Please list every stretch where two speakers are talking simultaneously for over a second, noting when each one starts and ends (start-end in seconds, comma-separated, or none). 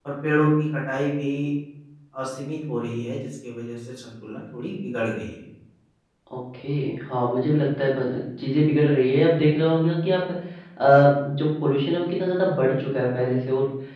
none